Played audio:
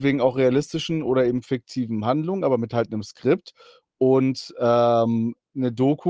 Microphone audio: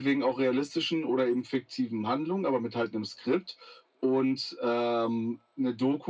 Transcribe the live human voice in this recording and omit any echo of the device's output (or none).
none